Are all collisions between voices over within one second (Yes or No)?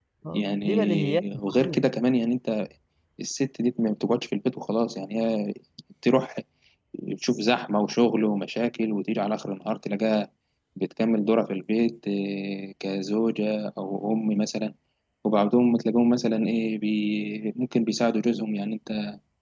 No